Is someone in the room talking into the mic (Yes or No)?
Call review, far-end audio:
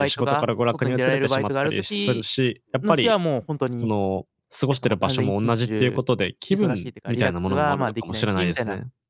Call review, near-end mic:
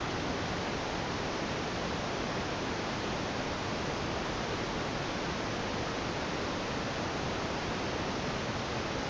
No